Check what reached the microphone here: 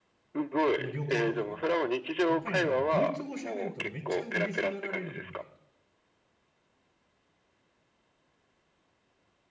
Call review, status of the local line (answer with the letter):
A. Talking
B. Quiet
A